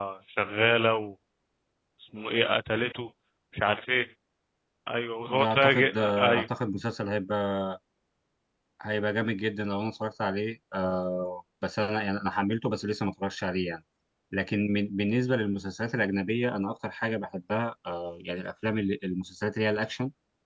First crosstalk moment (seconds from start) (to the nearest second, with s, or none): 5 s